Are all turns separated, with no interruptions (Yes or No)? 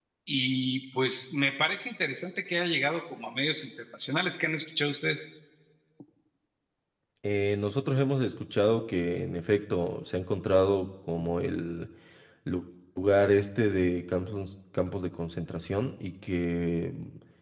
Yes